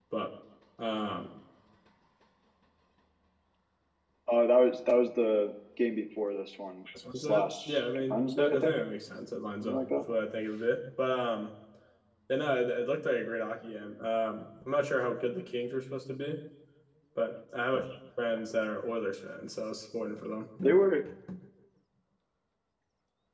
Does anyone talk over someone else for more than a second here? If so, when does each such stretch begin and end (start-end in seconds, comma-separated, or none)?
7.2-8.8